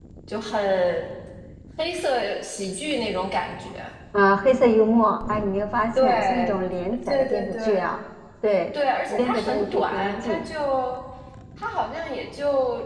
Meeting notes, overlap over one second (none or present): present